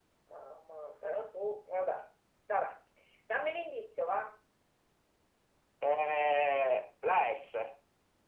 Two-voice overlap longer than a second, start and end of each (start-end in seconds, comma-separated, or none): none